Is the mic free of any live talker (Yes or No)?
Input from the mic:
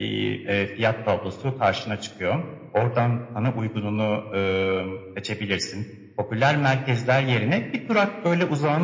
Yes